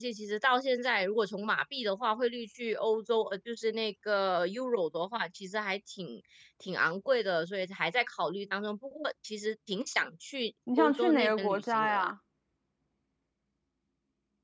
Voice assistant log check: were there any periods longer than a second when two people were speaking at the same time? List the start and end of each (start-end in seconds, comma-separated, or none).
10.8-12.1